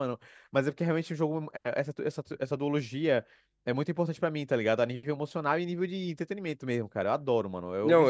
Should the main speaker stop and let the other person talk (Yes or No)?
Yes